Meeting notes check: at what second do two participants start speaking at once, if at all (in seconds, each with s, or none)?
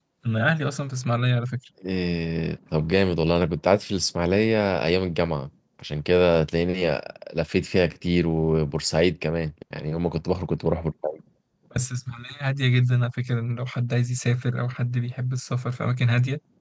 none